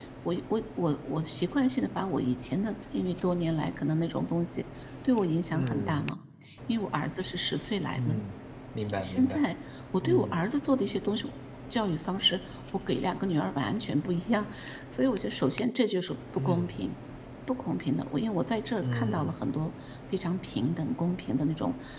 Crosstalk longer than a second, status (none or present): none